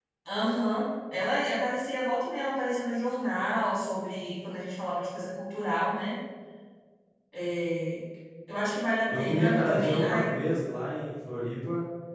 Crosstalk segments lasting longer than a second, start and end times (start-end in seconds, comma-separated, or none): 9.1-10.3